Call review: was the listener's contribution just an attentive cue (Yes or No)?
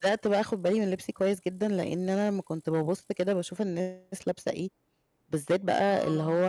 Yes